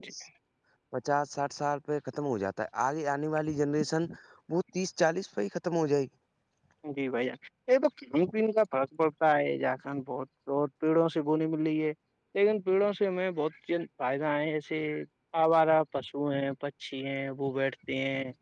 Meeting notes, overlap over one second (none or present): none